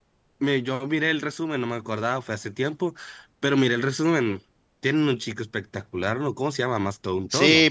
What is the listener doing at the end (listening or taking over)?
taking over